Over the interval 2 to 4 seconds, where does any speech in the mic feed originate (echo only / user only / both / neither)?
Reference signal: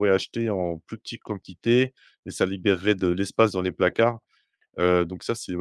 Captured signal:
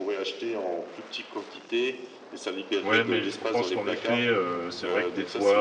both